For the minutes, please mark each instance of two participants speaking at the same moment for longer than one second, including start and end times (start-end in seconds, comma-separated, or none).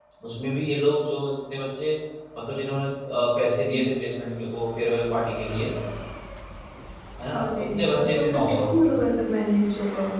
7.3-8.6